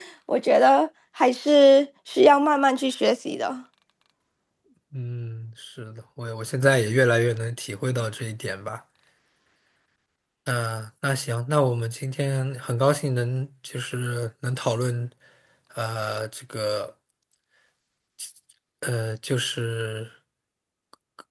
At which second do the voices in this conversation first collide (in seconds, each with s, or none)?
none